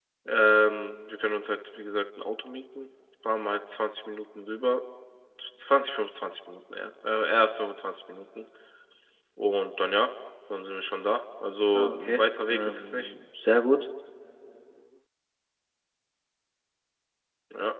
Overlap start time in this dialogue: 11.7 s

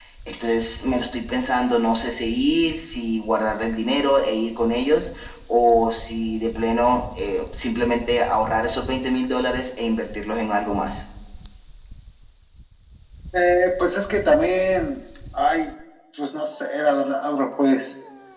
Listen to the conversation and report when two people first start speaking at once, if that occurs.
none

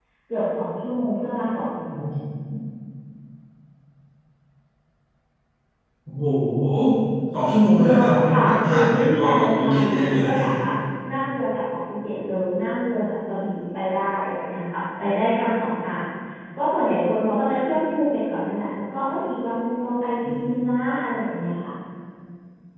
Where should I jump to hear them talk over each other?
7.8 s

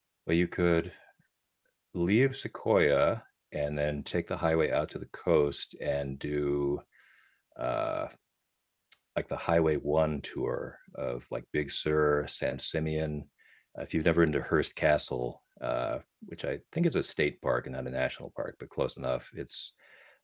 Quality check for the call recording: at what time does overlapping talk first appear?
none

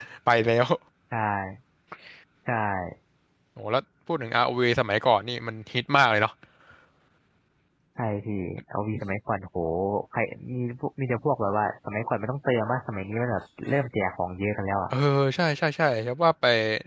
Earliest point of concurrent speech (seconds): none

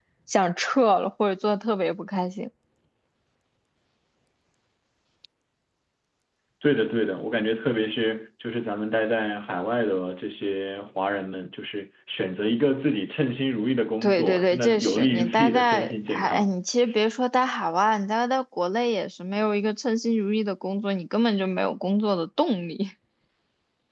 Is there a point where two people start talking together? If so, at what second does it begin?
14.0 s

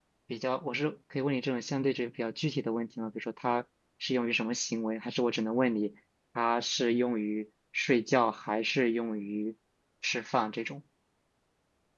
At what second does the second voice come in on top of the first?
none

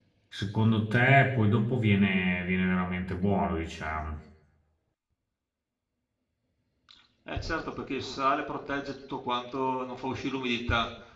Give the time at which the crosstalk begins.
none

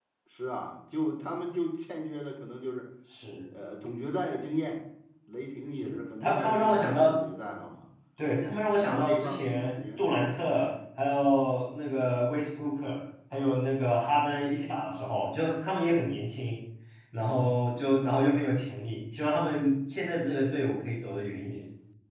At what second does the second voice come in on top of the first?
5.8 s

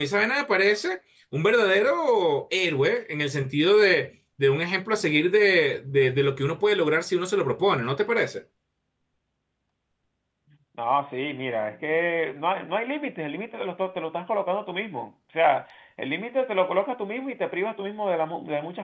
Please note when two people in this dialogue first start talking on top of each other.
none

